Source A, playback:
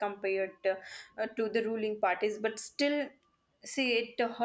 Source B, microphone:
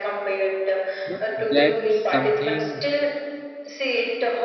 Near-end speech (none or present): present